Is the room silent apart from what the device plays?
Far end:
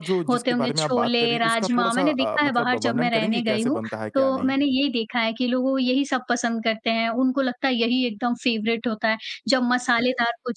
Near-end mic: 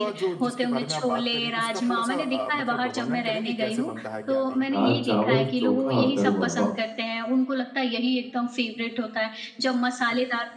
No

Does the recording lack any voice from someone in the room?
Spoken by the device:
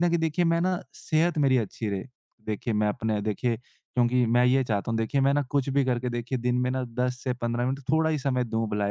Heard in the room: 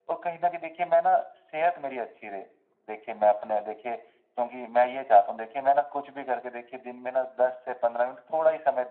Yes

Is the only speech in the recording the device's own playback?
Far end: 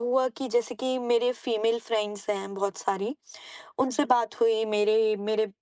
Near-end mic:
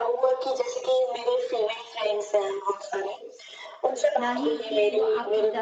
No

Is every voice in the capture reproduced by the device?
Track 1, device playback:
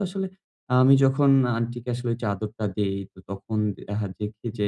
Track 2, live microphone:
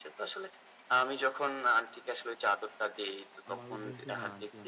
No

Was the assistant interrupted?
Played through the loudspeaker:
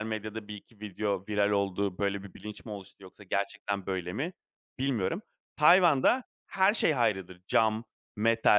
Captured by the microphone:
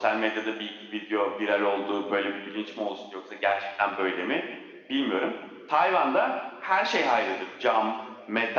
No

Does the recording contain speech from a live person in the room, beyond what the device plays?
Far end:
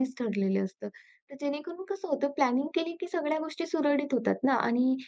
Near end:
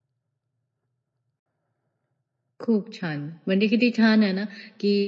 Yes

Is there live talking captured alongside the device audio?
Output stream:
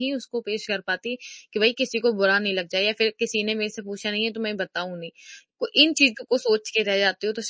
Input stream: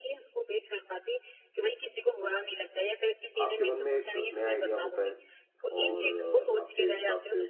Yes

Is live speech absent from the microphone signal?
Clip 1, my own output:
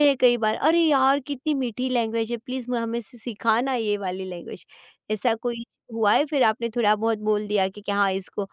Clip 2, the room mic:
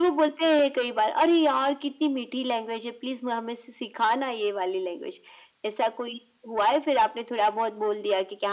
Yes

